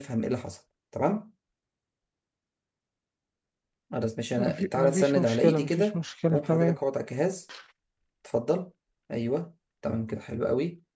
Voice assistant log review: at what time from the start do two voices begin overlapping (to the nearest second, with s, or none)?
4 s